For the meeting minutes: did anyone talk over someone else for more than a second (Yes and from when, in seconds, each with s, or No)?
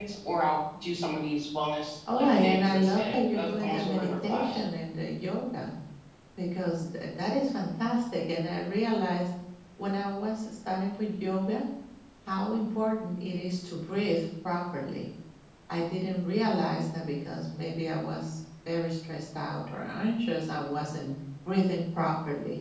Yes, from 2.1 s